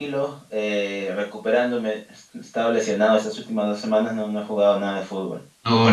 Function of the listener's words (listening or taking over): taking over